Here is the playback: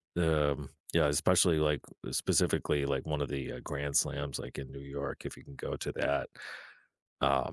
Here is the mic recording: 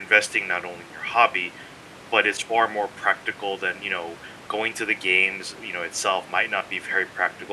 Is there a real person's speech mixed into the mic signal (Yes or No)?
Yes